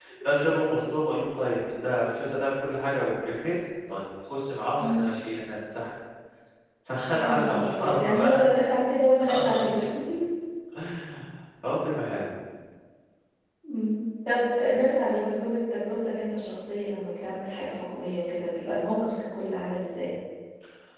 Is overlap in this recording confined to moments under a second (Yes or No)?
No